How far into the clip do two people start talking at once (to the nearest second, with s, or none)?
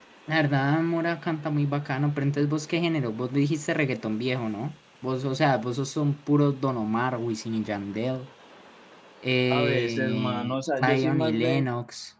9 s